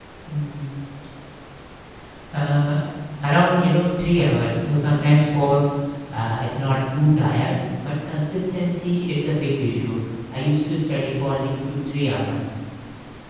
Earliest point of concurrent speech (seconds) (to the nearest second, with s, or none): none